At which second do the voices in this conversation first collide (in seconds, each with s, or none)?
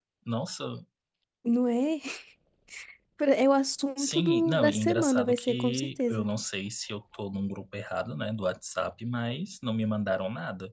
4.0 s